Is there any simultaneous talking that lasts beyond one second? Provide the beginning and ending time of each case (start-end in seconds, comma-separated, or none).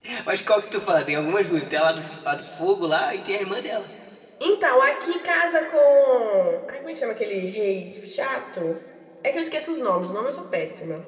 none